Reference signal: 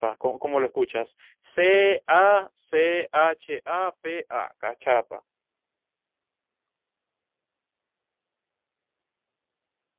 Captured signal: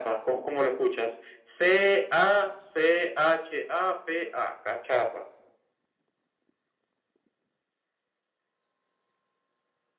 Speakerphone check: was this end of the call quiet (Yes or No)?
Yes